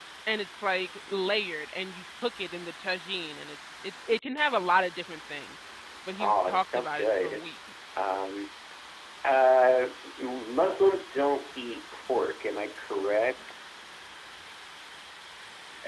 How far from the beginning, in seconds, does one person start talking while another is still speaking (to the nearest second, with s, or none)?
6 s